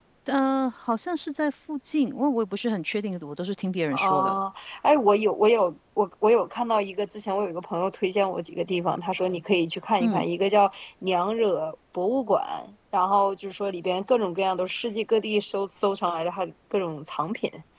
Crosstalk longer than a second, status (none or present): none